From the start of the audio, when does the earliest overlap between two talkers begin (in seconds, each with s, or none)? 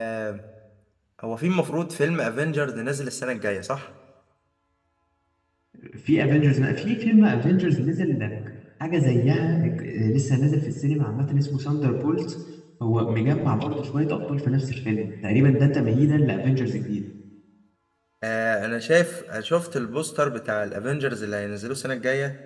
none